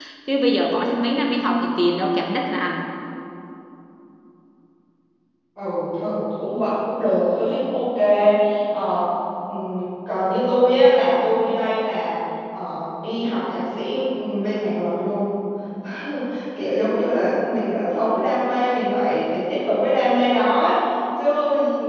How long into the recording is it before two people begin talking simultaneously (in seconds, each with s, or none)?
none